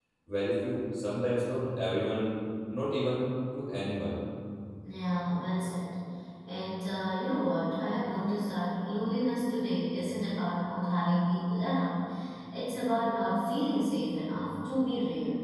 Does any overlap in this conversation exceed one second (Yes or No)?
No